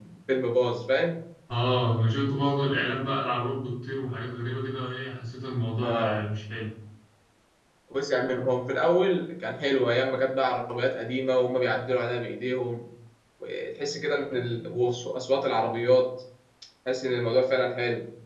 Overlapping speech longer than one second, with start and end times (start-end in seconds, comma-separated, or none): none